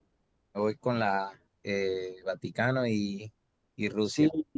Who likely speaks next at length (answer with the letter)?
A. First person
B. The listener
B